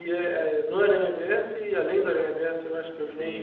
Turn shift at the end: Yes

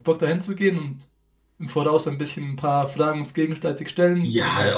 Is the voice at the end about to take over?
Yes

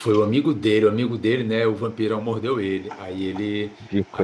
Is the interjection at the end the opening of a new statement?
No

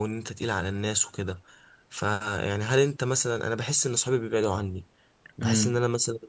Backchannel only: Yes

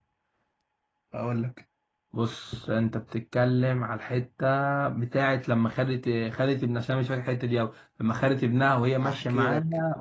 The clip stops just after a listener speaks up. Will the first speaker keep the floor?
No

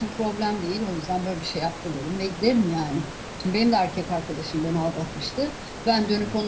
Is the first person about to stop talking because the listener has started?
No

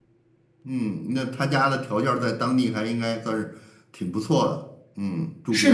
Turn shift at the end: Yes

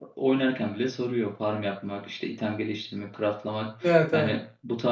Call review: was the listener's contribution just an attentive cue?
Yes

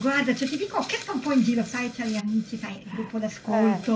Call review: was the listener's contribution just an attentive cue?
Yes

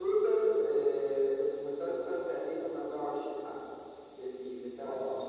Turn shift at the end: Yes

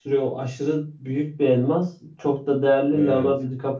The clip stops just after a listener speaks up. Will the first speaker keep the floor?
Yes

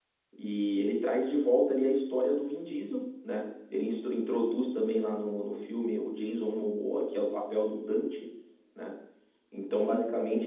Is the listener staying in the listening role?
Yes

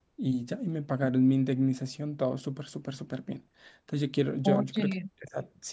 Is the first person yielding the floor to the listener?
No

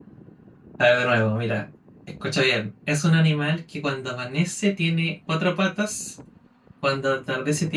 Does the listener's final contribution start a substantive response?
No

